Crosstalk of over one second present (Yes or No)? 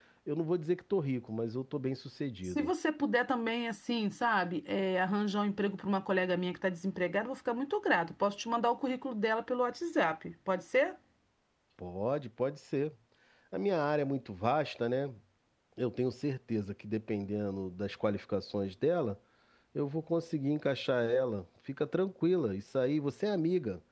No